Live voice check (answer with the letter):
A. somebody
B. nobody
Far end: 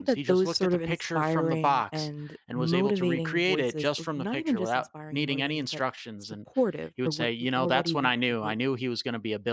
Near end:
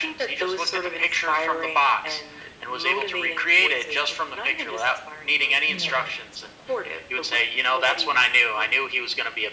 A